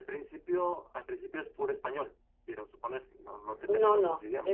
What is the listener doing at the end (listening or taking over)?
taking over